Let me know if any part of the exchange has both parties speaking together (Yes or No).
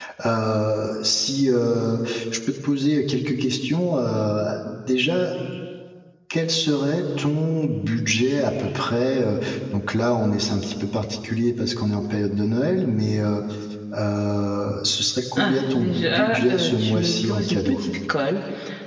Yes